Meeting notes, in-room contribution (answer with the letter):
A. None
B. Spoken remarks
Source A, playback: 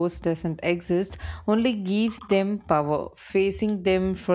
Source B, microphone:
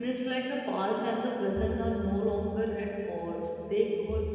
B